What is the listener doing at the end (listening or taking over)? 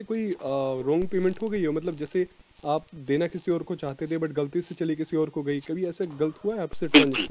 taking over